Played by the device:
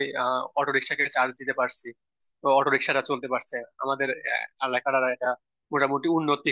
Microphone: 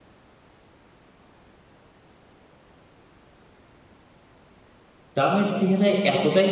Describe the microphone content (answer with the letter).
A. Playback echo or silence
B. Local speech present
B